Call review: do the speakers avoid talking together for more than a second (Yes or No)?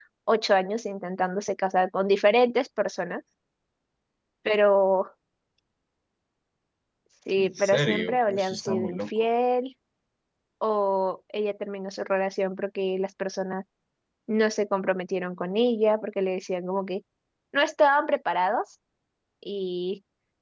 No